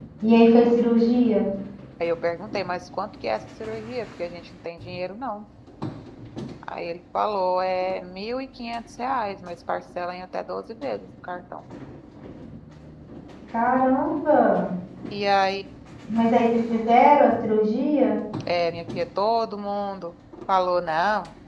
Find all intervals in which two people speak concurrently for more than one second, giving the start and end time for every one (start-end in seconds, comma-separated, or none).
none